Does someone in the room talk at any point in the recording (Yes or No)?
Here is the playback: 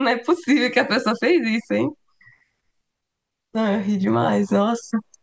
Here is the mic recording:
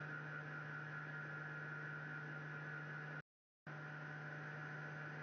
No